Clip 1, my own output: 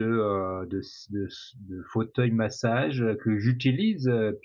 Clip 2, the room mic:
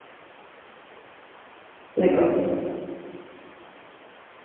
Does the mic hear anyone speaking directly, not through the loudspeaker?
Yes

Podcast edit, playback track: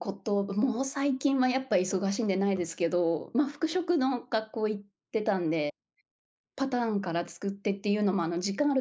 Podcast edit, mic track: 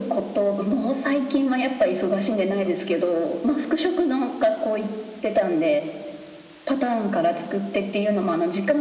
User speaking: No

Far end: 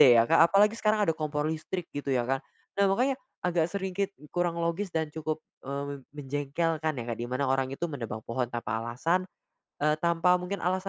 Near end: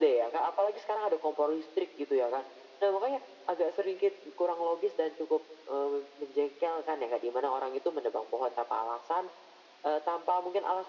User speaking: No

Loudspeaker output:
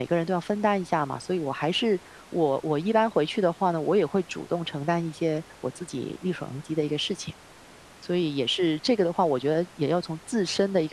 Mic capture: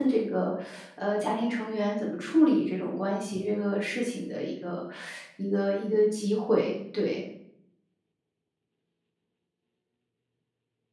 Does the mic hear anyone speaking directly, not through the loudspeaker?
Yes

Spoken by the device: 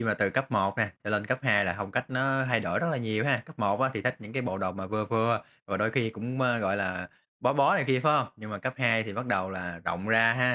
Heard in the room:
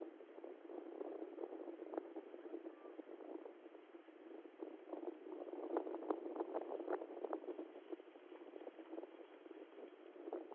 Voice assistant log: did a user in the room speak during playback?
No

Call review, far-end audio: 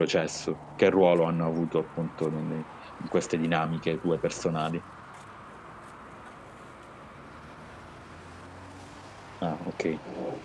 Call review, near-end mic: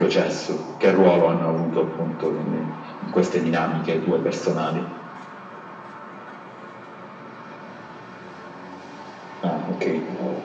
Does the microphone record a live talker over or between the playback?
No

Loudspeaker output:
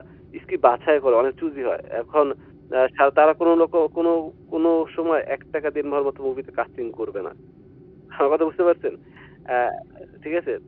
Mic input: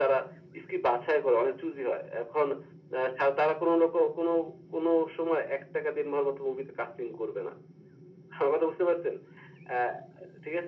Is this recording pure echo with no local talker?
Yes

